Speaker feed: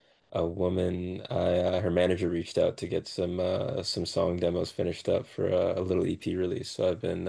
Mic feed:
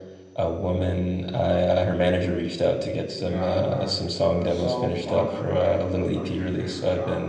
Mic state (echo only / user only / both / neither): both